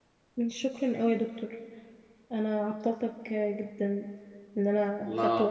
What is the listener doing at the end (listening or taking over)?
taking over